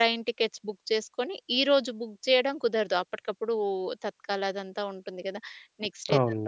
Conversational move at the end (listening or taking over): listening